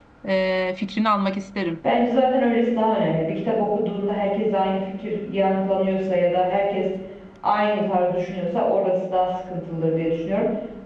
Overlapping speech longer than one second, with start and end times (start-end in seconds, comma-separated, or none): none